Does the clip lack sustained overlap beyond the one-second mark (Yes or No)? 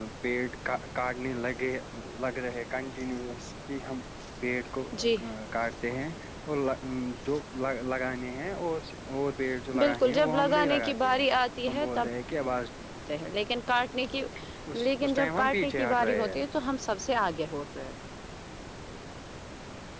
No